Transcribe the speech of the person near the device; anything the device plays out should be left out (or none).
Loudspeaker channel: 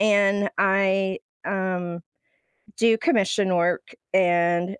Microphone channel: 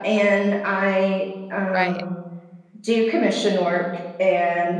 Right.